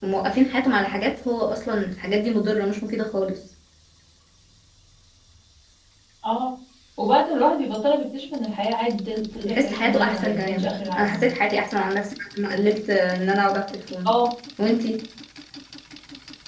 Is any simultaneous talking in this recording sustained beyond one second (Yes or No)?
Yes